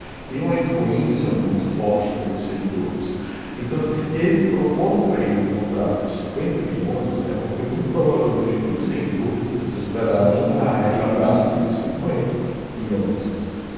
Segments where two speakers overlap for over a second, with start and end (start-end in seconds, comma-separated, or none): 10.0-11.7